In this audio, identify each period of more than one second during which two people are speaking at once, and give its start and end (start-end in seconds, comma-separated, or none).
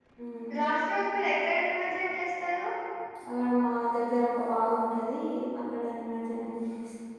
none